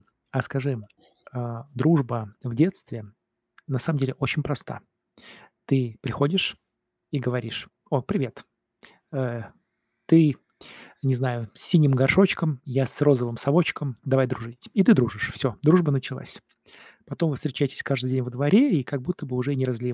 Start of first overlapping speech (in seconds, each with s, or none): none